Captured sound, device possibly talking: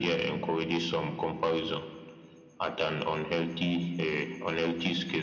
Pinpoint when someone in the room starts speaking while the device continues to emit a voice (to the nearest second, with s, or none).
none